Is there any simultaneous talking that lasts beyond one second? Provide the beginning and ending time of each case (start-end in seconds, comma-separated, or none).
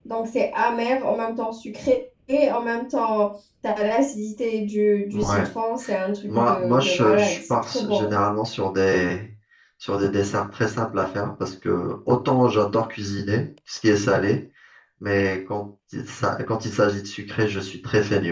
6.3-8.1